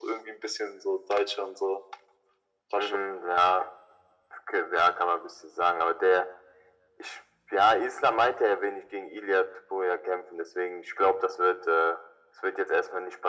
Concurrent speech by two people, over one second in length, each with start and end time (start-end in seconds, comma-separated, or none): none